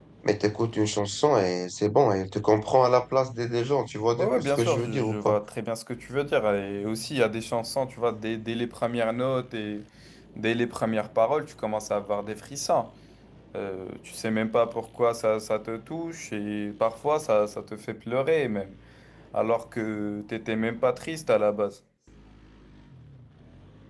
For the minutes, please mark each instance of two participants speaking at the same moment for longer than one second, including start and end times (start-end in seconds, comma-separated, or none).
4.2-5.4